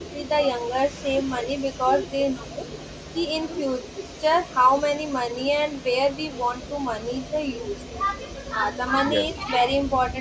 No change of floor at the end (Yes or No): Yes